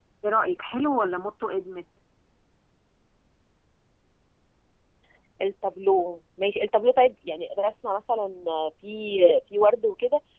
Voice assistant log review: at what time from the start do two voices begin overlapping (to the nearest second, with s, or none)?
none